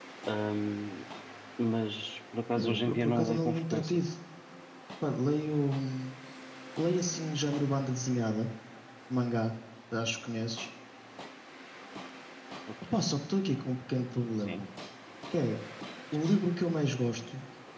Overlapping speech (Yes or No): Yes